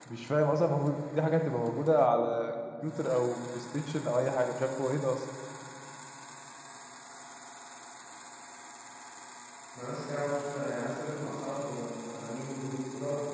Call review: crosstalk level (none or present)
none